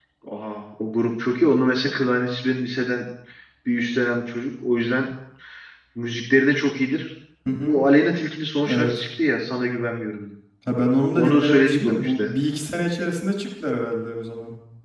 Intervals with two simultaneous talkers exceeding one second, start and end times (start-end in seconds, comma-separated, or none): 11.1-12.4